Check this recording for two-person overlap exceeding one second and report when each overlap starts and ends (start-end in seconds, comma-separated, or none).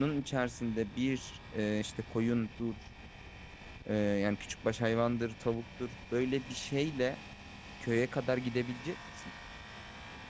none